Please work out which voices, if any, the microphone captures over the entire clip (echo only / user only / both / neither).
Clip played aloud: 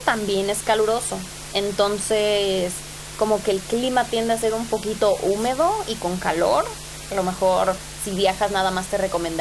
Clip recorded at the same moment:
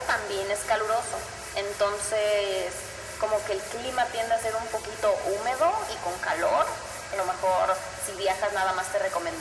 echo only